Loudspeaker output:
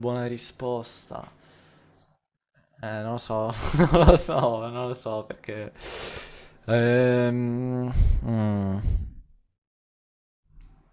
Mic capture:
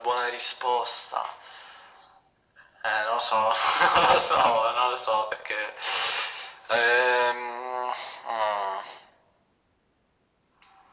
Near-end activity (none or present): none